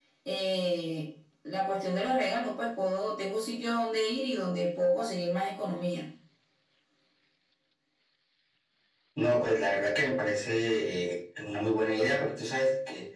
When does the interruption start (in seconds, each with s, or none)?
none